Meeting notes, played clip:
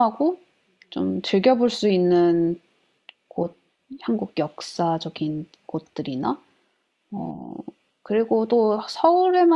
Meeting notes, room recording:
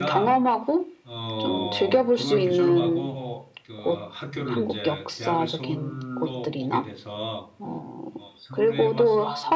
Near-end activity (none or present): present